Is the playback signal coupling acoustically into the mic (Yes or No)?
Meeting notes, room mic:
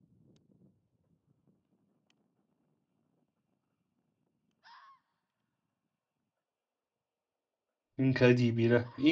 No